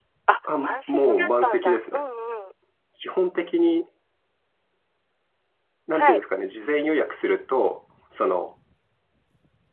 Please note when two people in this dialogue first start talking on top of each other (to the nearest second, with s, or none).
1 s